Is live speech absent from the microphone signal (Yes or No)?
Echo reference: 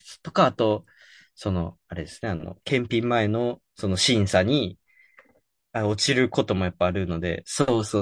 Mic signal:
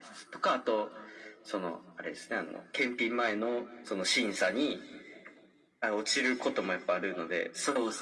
Yes